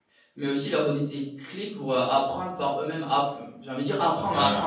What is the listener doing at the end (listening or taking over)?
taking over